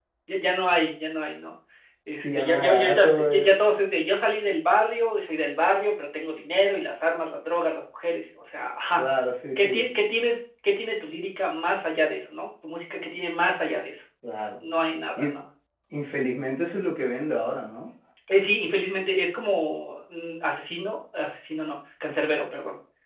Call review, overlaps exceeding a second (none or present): present